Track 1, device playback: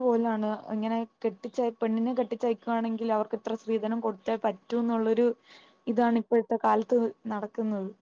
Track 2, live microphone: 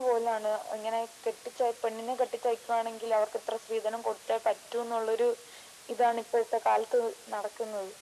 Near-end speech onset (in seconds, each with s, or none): none